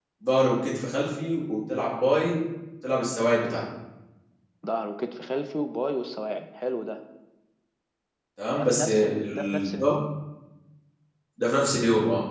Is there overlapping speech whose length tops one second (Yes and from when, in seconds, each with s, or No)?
Yes, from 8.6 s